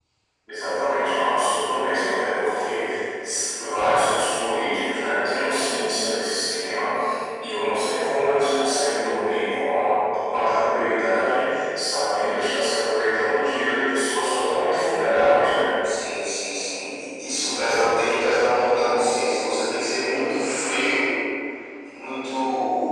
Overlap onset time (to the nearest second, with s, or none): none